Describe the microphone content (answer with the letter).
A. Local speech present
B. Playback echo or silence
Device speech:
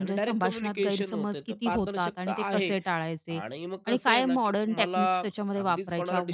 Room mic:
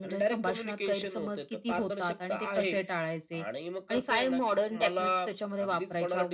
B